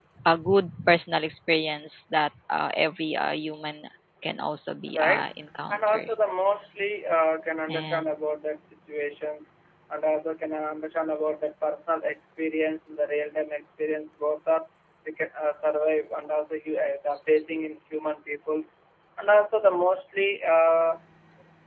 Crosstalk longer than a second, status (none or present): none